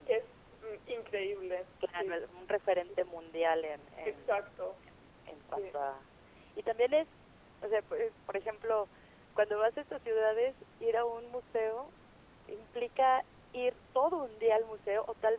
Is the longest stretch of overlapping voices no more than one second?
Yes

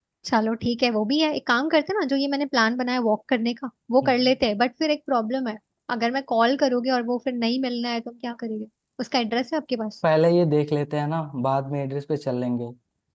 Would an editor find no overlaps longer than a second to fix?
Yes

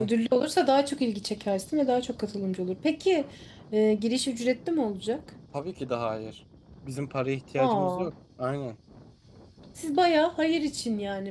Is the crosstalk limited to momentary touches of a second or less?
Yes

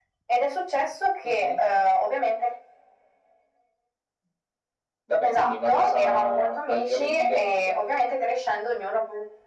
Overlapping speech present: Yes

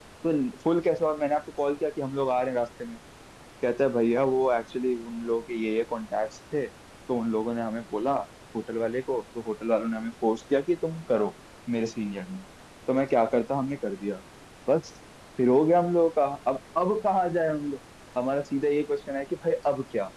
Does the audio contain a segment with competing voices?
No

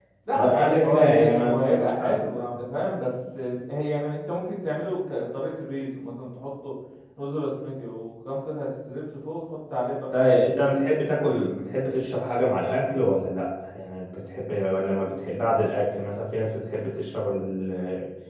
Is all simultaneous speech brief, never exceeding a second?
No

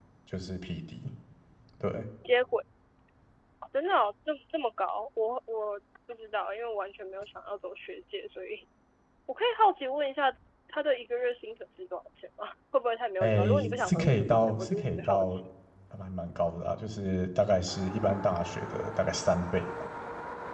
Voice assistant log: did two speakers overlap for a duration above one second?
Yes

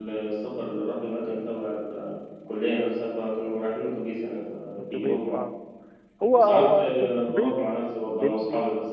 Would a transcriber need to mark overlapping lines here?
Yes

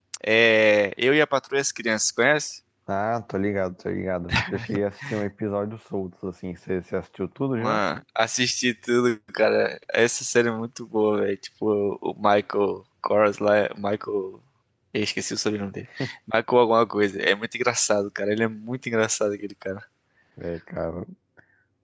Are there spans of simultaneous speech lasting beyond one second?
No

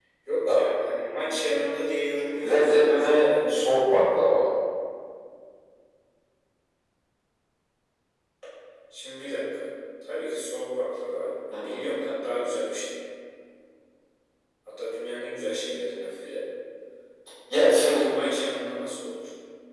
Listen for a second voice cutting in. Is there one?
Yes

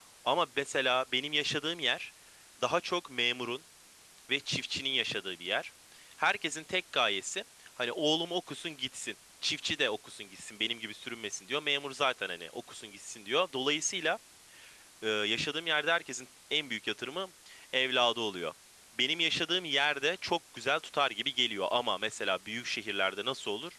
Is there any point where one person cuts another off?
No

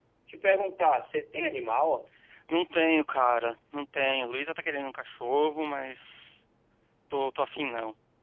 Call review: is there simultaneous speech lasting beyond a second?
No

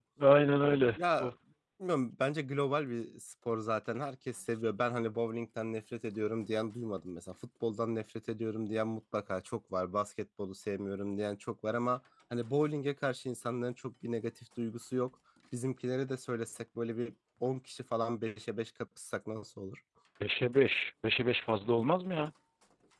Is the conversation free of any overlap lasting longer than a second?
Yes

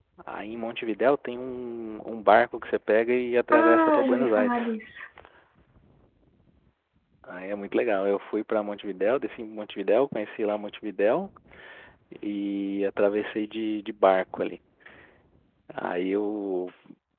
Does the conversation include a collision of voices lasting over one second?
Yes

